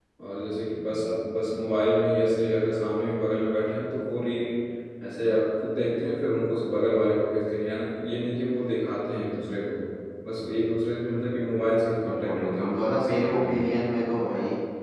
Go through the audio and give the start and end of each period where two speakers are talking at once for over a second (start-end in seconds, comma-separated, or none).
12.0-13.7